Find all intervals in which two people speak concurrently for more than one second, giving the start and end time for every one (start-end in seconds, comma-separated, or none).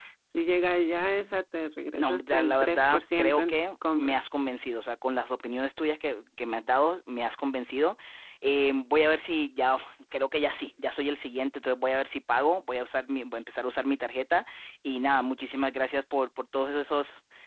2.0-4.2